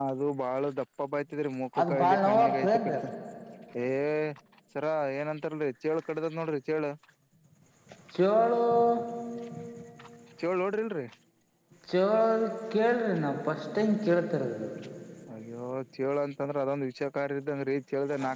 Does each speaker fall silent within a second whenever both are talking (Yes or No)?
No